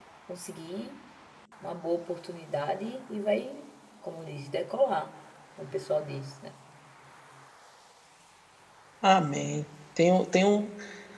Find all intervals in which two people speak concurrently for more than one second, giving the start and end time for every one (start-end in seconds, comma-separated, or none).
none